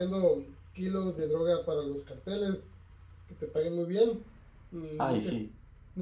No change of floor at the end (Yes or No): Yes